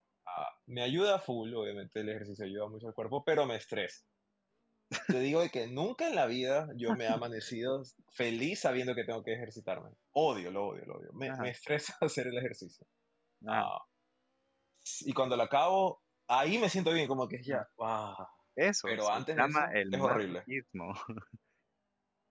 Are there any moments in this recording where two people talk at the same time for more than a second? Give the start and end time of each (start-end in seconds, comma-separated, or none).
18.9-20.2